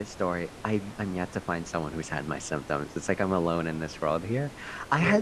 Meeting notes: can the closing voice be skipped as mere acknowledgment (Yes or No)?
Yes